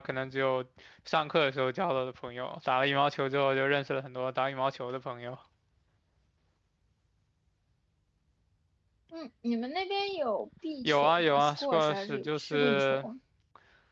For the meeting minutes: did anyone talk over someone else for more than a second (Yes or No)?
Yes